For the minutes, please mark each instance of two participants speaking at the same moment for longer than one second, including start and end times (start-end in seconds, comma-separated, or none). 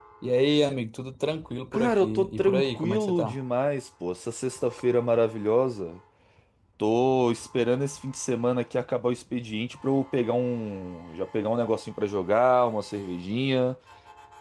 1.7-3.4